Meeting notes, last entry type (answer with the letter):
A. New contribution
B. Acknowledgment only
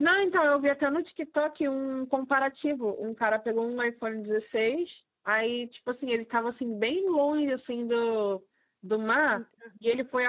B